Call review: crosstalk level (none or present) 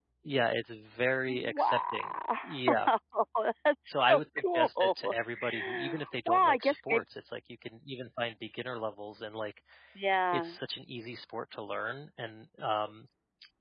present